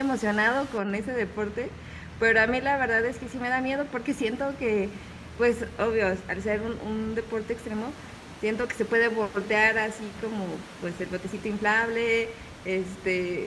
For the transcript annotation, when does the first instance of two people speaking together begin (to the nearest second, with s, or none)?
none